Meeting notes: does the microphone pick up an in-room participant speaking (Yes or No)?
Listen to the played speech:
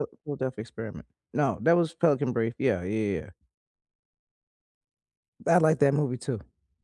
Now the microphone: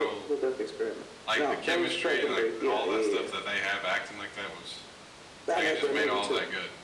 Yes